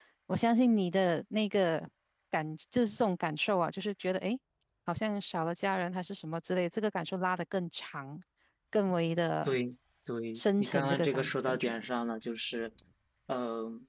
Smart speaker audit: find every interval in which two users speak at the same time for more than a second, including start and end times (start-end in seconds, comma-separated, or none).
10.3-11.7